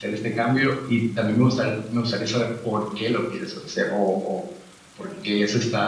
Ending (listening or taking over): listening